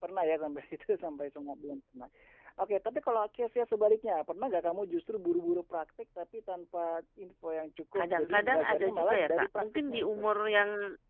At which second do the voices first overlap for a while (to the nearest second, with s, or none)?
8 s